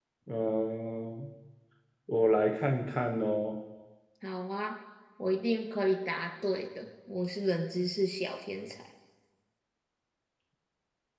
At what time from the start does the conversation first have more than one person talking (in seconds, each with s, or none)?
none